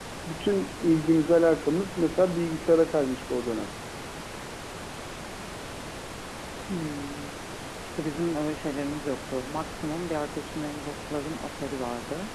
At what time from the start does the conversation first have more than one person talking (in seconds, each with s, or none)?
none